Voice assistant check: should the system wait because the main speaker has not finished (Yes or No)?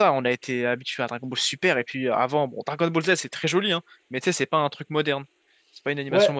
No